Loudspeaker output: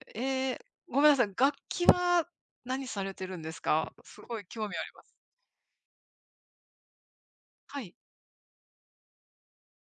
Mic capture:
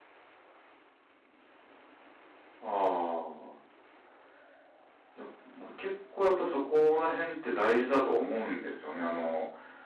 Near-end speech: present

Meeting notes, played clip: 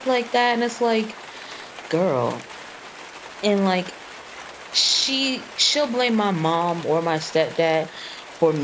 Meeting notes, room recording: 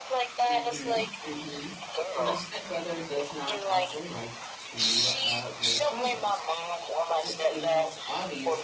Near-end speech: present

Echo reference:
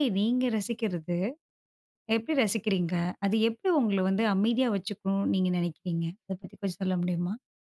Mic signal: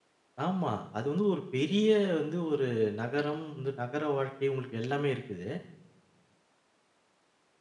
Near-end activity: present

